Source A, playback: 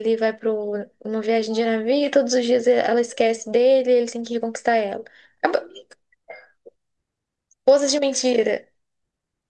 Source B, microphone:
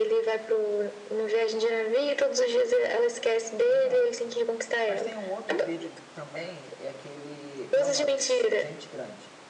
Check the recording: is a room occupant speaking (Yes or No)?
Yes